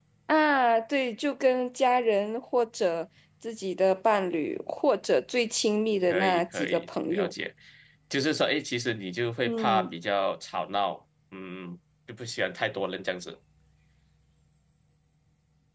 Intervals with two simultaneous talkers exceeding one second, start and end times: 6.1-7.3

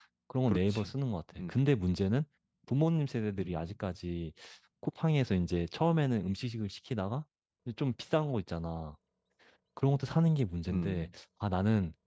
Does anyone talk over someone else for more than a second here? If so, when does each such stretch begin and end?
none

